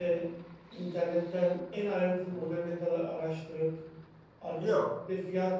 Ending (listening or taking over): listening